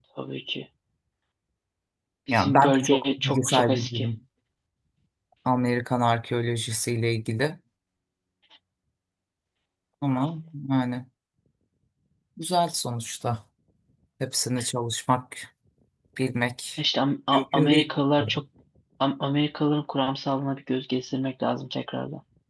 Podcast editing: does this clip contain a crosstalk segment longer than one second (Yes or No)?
Yes